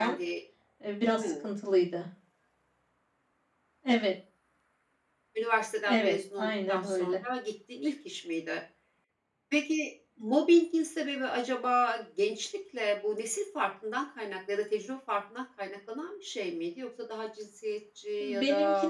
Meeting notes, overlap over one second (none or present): present